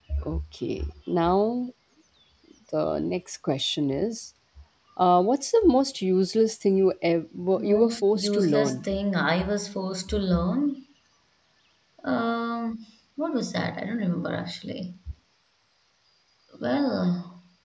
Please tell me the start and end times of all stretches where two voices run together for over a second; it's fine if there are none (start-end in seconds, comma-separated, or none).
7.6-8.9